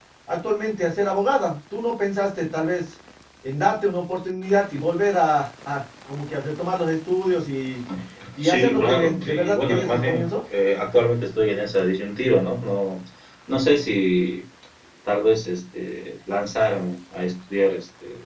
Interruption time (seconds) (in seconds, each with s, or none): 8.4 s